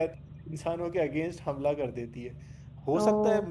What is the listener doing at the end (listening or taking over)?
listening